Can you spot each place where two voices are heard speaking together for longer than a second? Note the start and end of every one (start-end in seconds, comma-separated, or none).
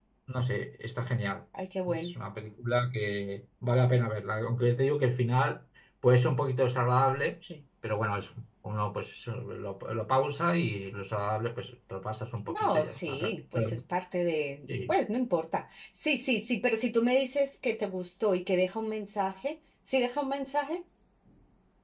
12.5-13.7